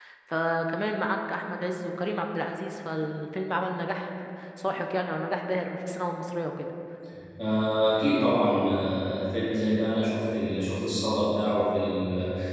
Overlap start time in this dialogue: none

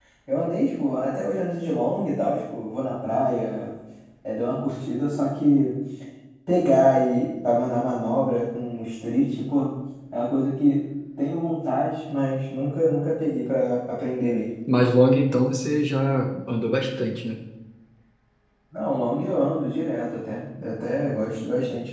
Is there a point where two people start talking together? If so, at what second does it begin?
none

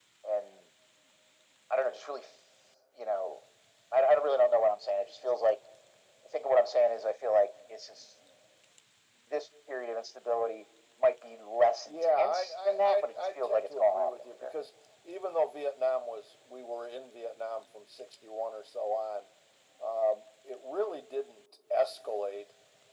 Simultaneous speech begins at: 11.8 s

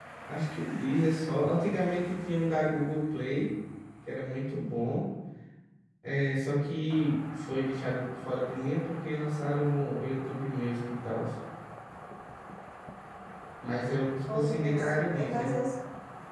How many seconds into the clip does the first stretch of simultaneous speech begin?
14.3 s

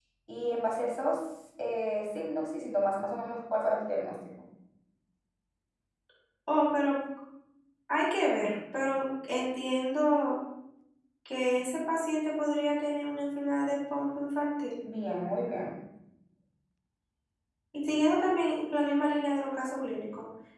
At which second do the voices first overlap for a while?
none

